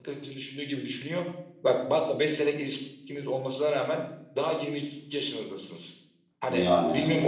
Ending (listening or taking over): listening